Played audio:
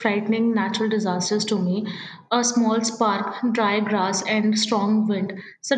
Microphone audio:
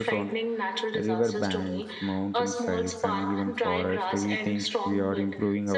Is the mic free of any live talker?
No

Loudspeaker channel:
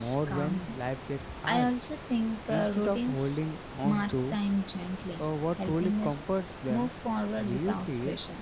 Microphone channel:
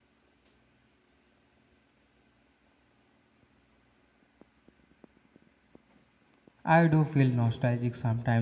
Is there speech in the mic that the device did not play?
Yes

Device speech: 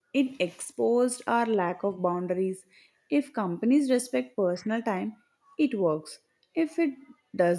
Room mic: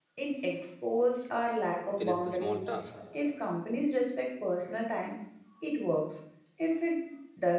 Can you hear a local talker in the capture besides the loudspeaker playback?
Yes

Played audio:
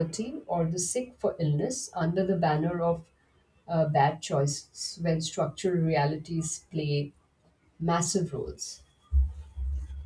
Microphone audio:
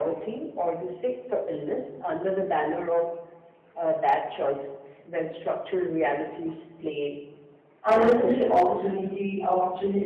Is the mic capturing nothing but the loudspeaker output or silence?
No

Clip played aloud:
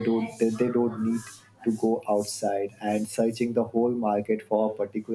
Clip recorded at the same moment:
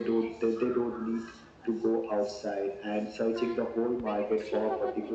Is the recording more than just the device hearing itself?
Yes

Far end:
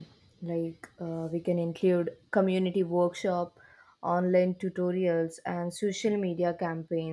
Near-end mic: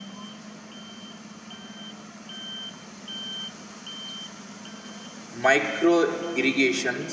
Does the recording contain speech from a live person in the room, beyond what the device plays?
Yes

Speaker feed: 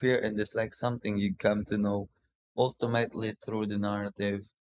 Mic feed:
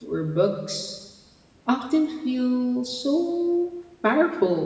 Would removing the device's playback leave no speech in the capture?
No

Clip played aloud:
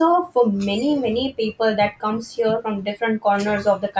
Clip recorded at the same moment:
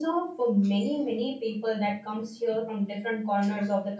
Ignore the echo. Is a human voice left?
No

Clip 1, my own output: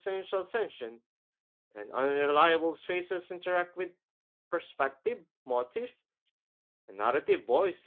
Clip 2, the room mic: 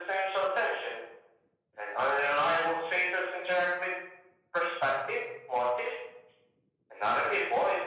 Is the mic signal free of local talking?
Yes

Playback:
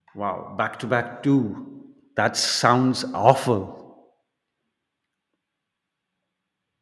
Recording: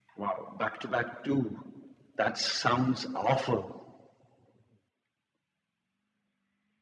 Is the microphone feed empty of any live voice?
Yes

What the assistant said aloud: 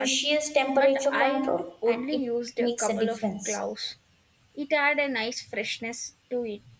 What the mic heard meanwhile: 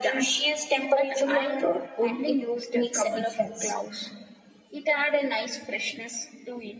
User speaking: No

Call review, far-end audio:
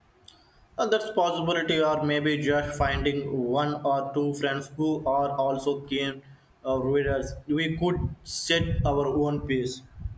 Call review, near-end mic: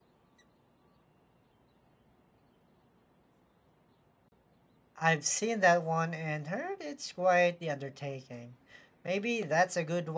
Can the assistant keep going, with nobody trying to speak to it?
No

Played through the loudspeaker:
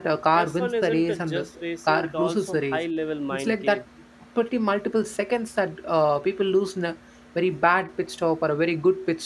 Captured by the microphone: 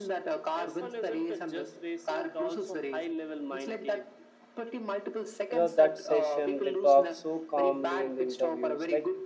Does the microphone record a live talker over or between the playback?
Yes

